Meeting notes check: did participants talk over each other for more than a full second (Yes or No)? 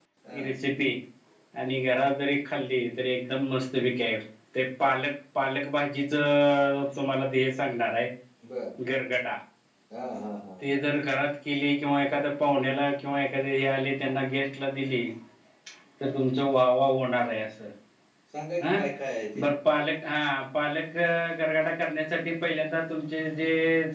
No